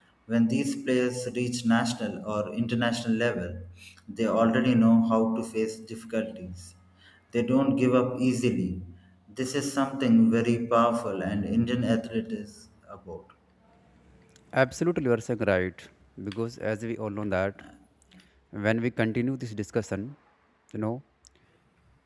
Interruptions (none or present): none